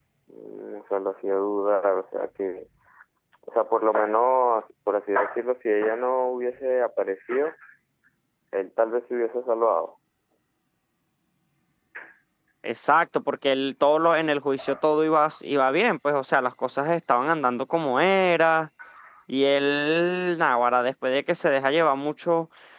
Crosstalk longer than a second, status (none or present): none